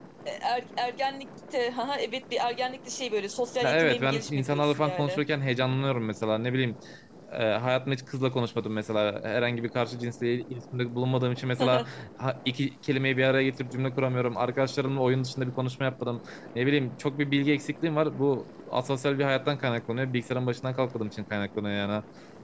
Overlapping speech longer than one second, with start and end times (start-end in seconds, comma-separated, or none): 3.6-5.2